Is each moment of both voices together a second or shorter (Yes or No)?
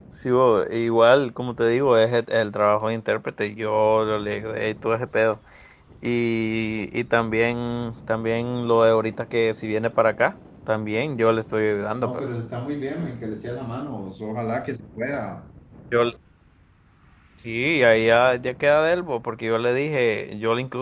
Yes